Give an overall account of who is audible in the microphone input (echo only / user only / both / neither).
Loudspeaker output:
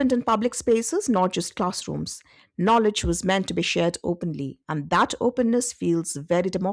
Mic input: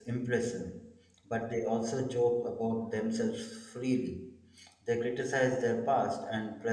user only